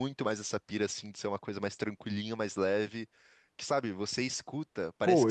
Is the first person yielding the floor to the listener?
Yes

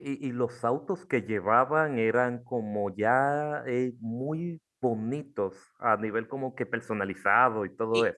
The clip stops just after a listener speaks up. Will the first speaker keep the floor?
No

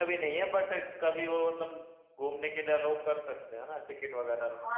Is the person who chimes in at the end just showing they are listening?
No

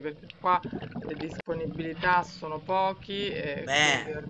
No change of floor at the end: Yes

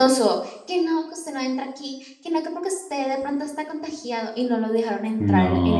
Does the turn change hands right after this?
No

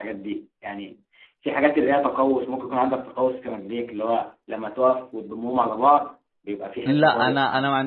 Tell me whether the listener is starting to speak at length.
Yes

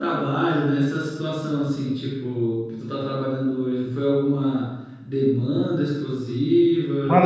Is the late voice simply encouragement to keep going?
No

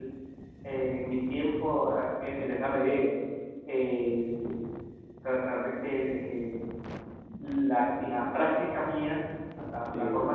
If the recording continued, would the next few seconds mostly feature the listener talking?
No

